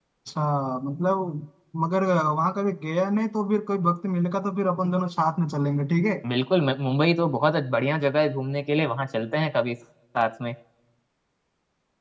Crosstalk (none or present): none